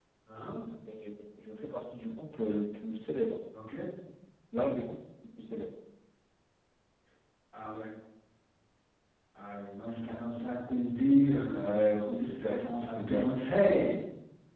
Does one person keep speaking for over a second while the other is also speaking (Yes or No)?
Yes